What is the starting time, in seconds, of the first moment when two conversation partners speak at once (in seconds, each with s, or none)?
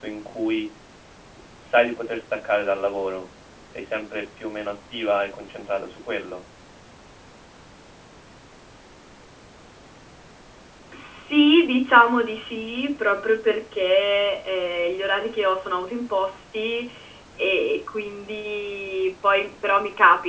none